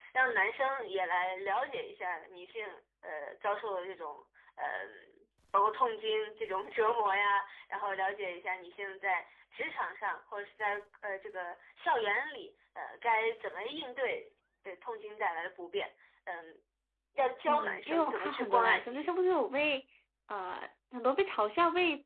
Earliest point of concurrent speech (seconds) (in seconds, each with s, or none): 17.5 s